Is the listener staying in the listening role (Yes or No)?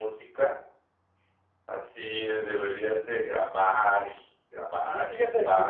No